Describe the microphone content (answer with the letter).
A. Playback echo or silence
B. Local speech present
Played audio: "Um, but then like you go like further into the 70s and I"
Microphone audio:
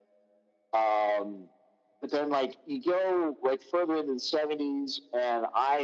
A